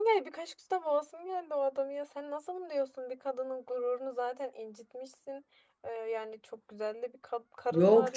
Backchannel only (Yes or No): No